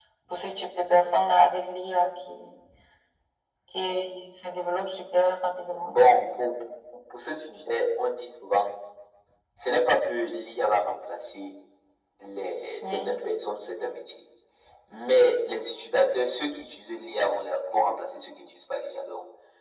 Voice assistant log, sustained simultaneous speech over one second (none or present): none